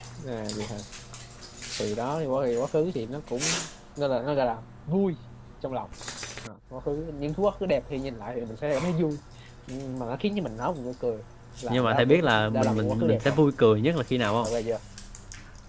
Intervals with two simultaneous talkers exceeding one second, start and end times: 11.7-13.4

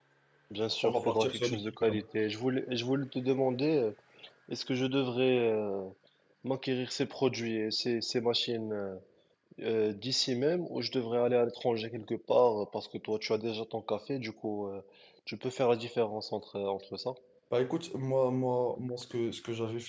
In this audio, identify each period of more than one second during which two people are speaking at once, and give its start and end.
0.8-2.0

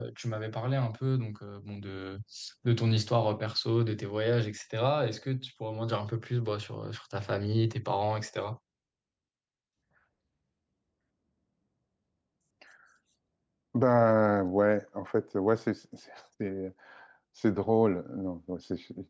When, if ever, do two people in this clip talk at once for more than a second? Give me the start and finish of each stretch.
none

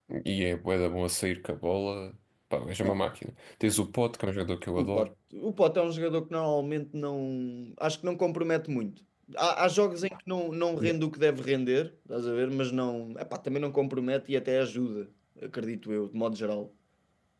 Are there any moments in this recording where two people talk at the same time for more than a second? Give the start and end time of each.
none

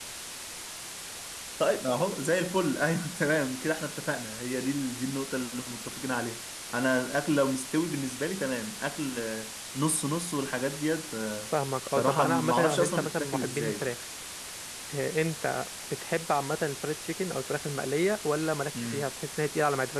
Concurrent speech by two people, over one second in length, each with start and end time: 11.9-13.9

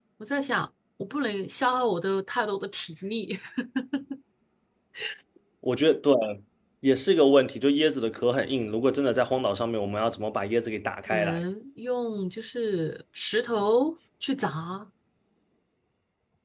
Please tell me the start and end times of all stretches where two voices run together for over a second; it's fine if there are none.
none

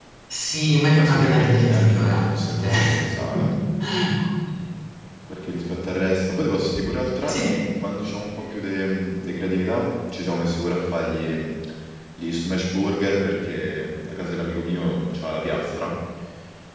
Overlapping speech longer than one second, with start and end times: 0.9-2.7

